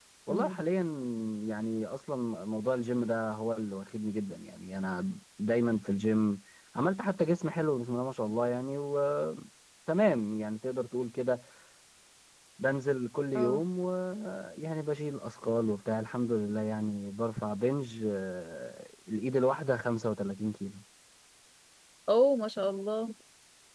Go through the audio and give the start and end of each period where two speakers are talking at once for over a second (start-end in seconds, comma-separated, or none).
none